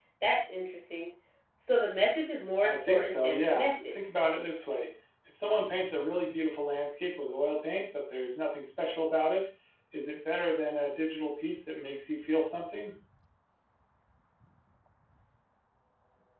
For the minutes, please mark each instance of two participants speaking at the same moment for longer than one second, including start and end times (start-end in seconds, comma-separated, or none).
2.6-3.9